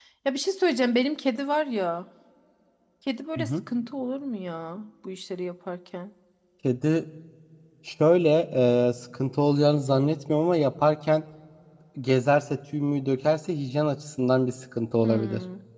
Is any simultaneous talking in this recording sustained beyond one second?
No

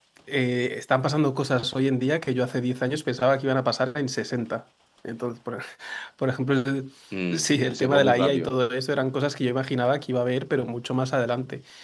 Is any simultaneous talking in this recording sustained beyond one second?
Yes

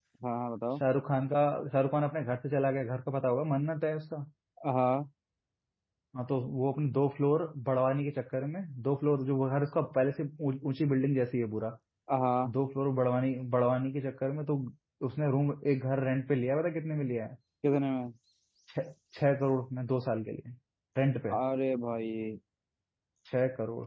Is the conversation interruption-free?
Yes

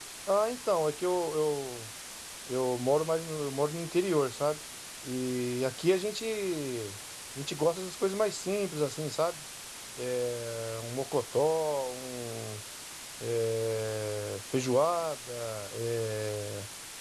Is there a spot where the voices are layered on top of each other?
No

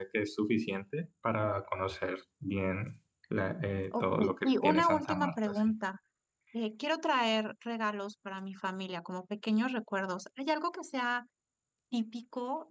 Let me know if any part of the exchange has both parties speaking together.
Yes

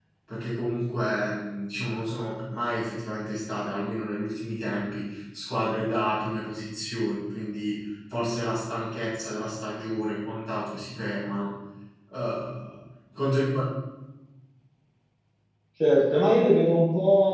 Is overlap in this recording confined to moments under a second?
Yes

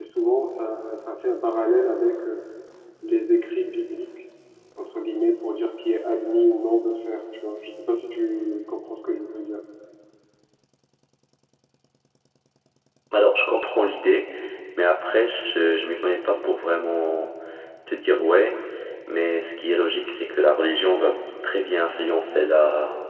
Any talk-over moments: No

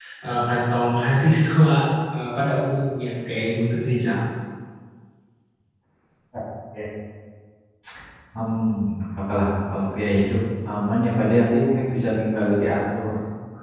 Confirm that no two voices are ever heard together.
Yes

